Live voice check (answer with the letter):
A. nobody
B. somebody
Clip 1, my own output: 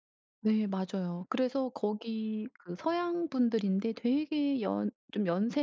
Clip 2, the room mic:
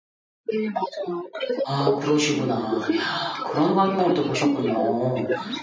B